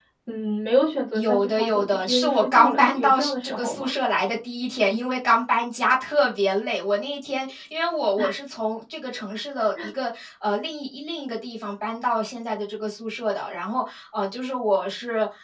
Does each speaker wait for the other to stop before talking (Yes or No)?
No